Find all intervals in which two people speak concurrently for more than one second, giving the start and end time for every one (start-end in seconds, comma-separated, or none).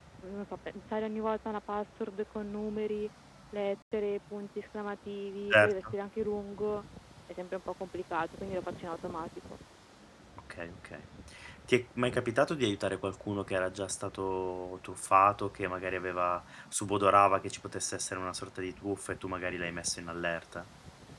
none